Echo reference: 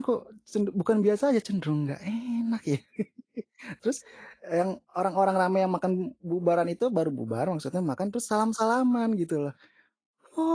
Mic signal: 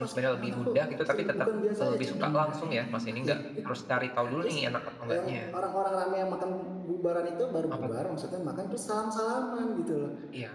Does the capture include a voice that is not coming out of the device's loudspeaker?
Yes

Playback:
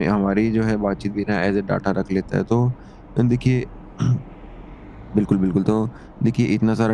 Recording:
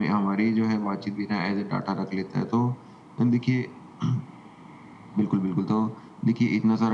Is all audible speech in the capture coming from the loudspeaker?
Yes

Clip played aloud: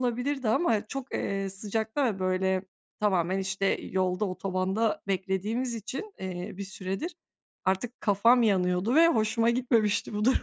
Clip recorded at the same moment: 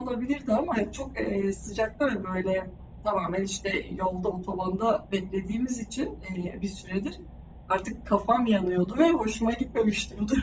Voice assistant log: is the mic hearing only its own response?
Yes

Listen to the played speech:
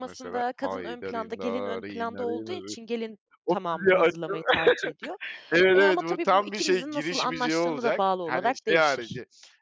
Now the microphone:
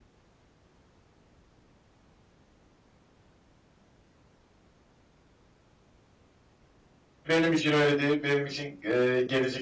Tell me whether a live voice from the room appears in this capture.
Yes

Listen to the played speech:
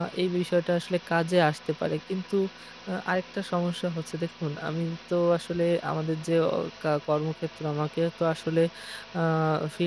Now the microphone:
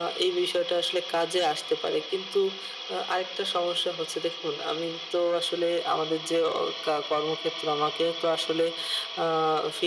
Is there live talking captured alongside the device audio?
No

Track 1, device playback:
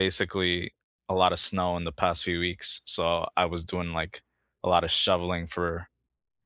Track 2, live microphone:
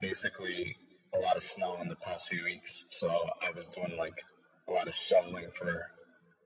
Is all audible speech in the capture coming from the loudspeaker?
Yes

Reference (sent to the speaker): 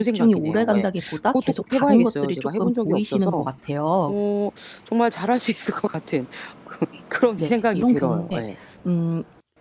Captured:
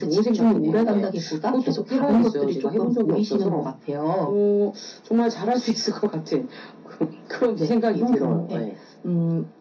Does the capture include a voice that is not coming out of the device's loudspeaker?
No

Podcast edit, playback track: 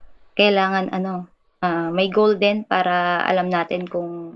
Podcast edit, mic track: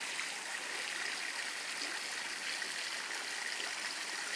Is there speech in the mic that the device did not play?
No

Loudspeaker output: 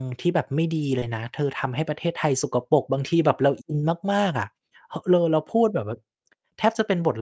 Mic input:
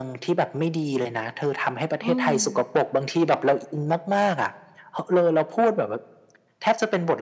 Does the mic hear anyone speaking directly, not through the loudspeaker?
Yes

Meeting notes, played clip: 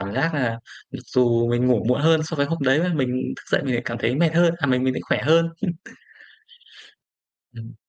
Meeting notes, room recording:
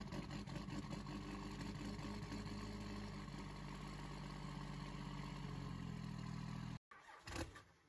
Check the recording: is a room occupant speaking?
No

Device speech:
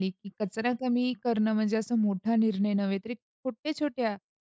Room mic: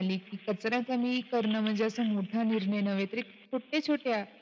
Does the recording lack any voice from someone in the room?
Yes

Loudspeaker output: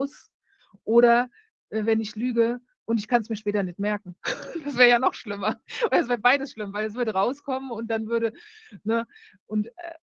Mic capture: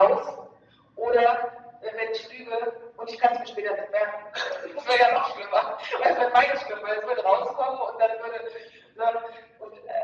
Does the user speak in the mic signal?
No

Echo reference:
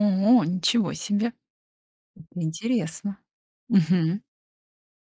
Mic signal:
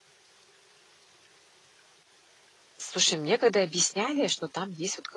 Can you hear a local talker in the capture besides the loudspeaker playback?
Yes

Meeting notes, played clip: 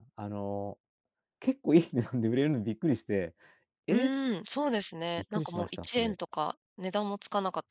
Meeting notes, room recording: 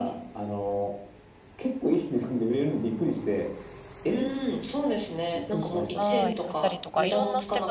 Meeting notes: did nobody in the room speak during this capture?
No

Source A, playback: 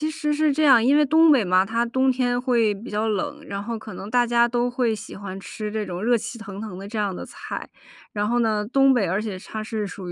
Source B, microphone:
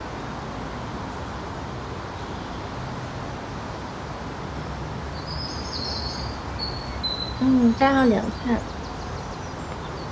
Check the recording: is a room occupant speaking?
Yes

